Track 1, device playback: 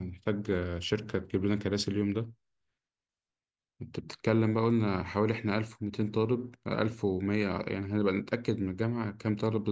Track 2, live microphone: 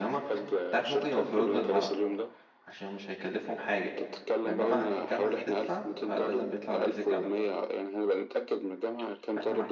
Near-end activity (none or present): present